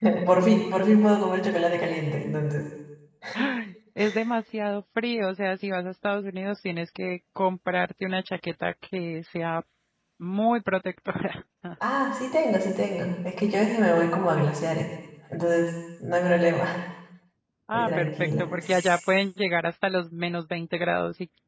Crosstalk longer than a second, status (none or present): present